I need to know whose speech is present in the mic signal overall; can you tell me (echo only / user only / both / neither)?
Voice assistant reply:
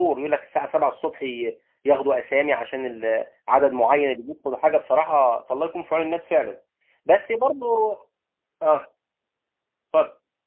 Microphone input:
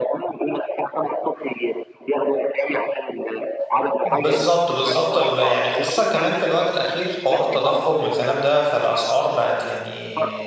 both